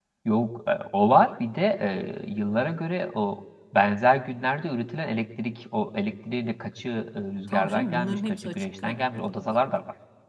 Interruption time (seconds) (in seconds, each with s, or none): 7.5 s